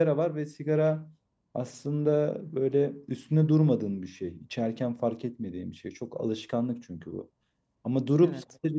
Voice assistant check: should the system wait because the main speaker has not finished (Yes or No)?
Yes